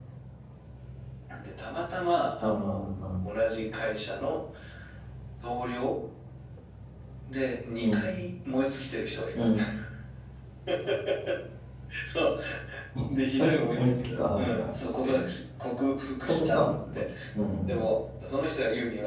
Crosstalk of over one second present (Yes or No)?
Yes